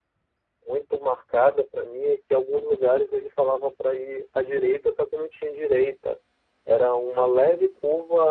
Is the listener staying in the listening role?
Yes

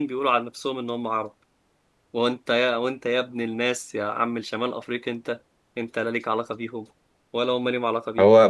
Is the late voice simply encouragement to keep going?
No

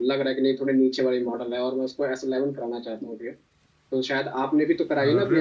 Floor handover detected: No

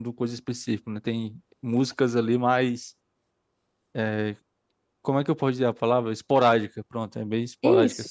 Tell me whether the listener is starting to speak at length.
Yes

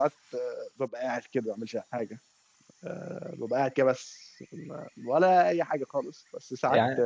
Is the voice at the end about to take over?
No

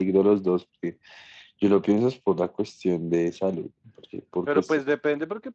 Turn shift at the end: Yes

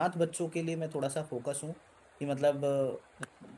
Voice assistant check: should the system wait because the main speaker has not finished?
Yes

